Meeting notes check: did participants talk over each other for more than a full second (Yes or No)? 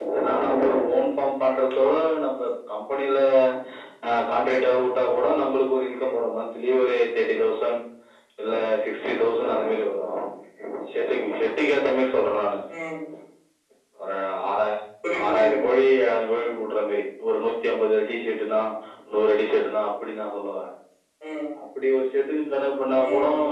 No